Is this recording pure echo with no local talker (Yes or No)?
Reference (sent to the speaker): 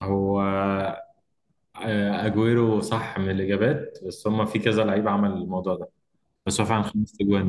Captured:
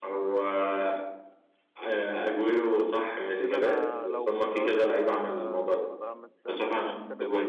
No